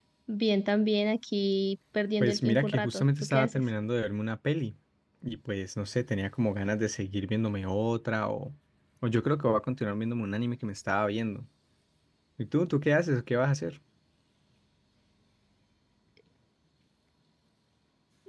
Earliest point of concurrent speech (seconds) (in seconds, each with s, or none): 2.2 s